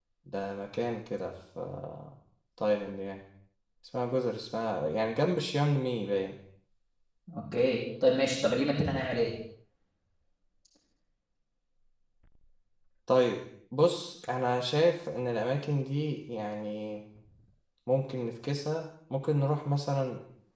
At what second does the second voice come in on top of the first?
none

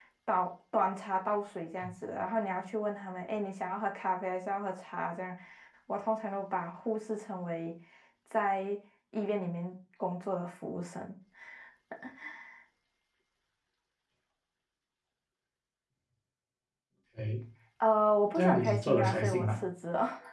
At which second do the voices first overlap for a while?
18.4 s

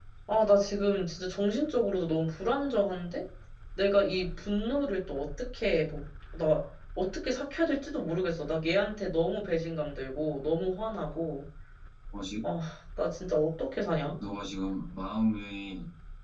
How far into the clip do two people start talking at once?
none

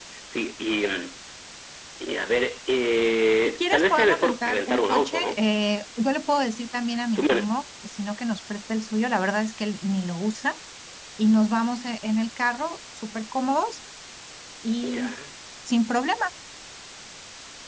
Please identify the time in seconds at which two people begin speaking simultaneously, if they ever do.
3.5 s

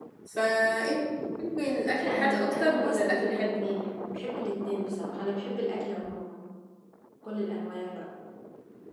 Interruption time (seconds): 2.0 s

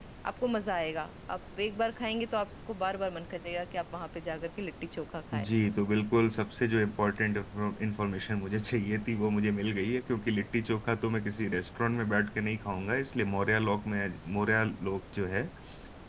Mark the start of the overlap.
none

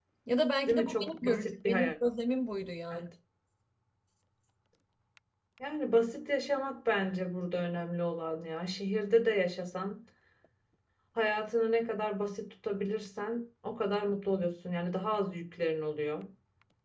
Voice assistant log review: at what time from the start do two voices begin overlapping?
0.7 s

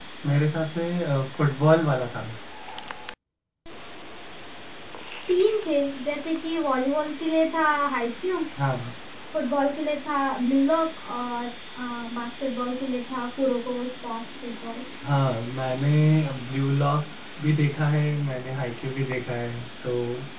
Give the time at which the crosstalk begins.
none

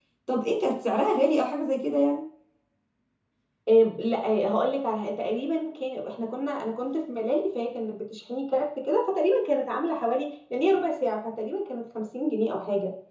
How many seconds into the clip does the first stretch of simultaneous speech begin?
none

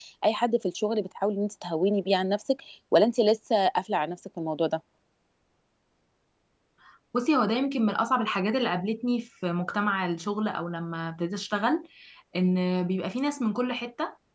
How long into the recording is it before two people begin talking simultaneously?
none

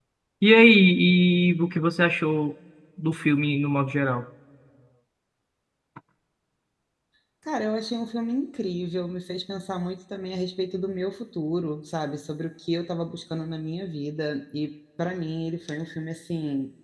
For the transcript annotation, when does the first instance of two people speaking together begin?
none

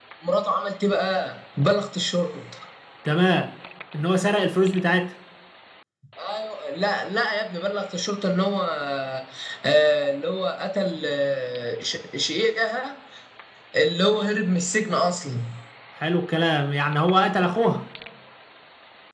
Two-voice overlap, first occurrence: none

